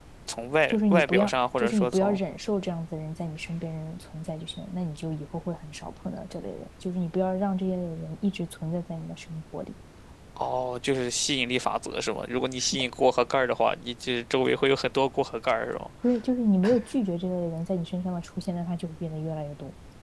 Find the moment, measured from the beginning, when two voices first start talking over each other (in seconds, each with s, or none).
0.7 s